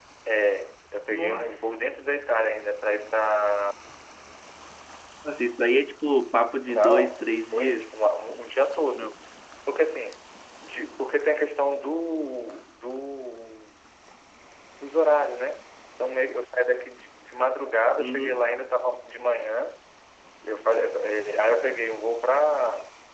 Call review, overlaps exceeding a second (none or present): present